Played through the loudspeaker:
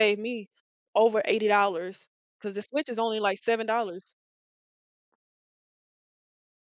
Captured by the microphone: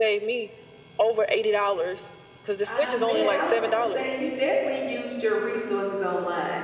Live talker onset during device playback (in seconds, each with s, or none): 2.6 s